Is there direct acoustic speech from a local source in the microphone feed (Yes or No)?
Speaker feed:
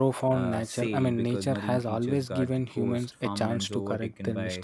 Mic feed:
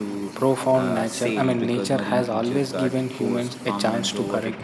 No